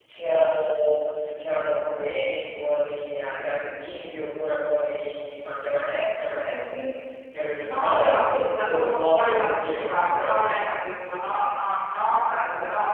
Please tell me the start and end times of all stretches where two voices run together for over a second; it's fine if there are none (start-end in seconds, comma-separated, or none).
7.6-10.7